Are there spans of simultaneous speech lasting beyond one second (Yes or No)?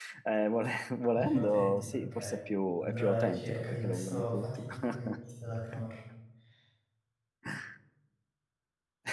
Yes